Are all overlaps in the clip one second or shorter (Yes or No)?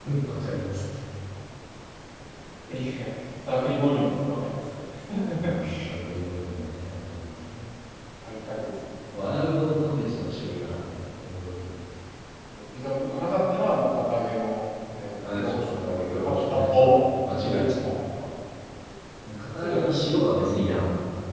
No